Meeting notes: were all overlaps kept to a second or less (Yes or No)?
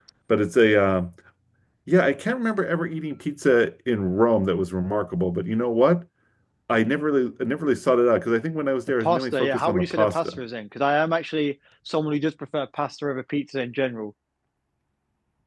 No